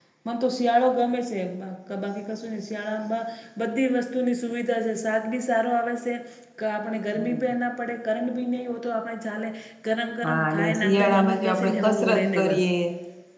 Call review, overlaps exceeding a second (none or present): present